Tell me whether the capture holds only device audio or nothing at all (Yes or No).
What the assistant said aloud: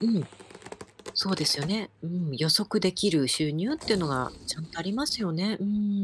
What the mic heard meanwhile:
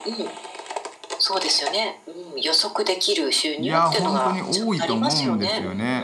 No